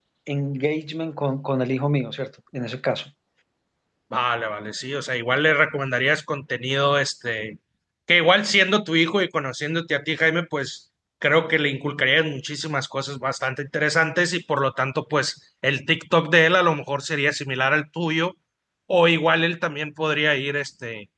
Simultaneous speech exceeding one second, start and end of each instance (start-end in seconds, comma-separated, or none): none